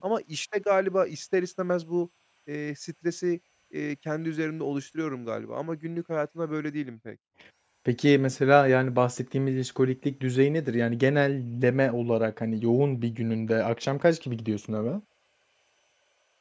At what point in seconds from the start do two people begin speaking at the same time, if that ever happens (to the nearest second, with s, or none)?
none